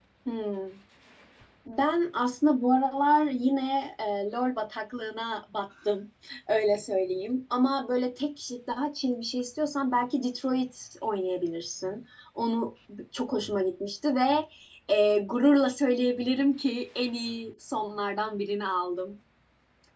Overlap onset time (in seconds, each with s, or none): none